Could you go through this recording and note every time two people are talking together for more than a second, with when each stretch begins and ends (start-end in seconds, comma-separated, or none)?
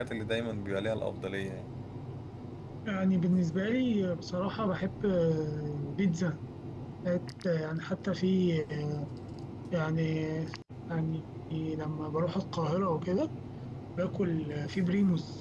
none